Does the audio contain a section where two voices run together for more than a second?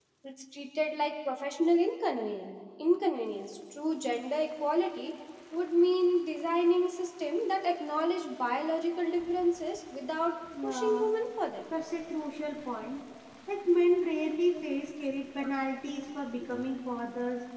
No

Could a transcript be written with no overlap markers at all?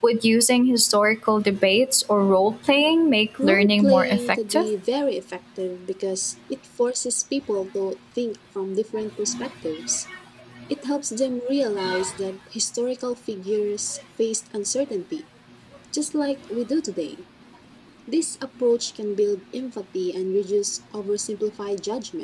No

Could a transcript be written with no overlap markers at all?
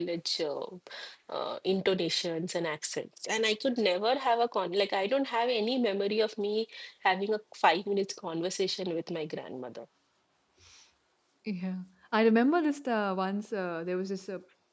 Yes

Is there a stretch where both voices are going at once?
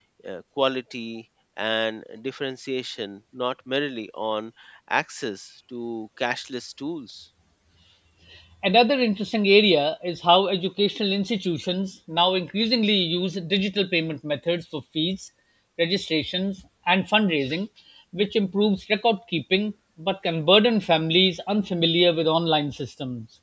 No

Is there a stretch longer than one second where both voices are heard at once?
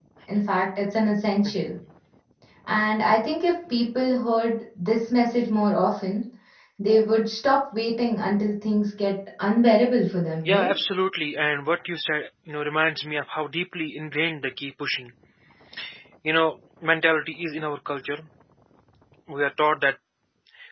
No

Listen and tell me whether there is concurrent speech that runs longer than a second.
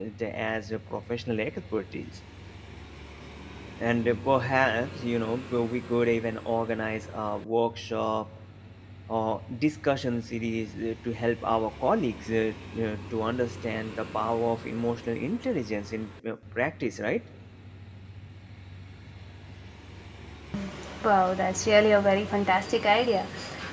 No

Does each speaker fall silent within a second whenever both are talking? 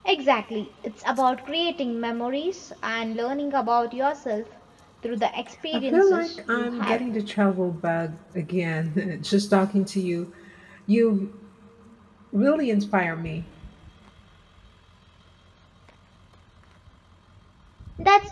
No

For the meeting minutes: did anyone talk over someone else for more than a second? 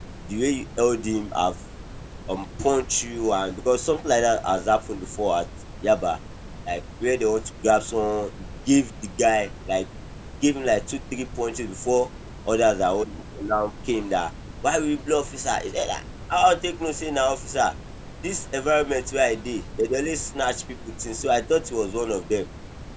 No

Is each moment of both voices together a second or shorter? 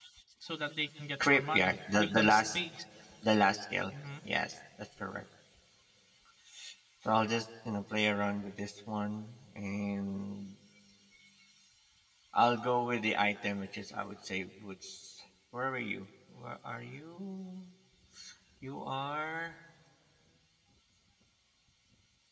No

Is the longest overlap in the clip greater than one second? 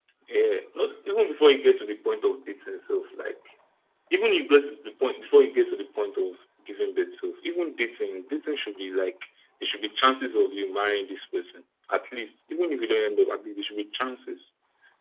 No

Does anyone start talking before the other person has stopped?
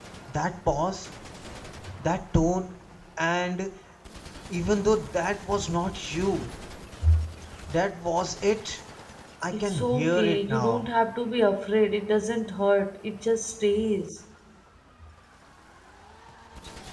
Yes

